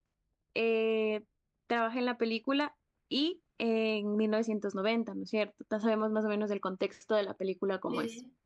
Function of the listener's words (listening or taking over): taking over